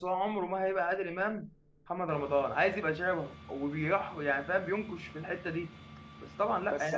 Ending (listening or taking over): taking over